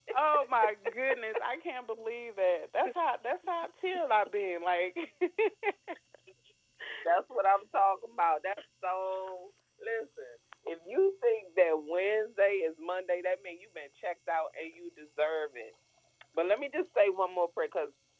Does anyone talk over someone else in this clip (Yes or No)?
No